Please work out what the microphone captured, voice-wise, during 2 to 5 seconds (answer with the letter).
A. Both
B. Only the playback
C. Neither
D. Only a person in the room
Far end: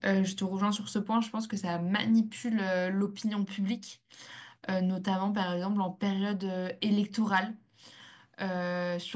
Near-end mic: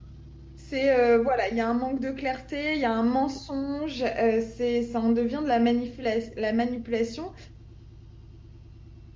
D